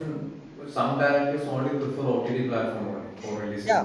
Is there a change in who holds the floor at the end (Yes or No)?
Yes